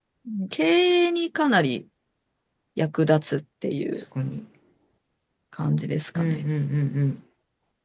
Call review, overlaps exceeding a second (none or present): none